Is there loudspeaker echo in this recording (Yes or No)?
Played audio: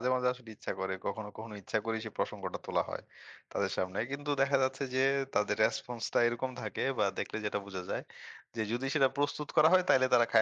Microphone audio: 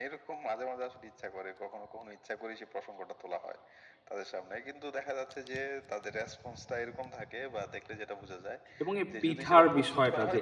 Yes